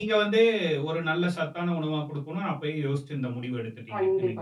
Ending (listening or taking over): taking over